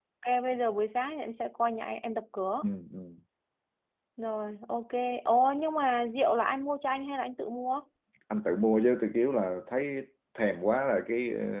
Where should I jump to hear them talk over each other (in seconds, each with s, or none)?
none